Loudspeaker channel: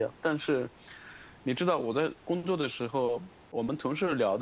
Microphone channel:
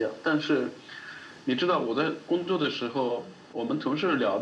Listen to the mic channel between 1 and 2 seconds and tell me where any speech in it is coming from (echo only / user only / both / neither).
echo only